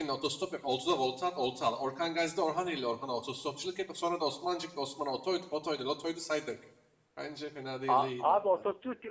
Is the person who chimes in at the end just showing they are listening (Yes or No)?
No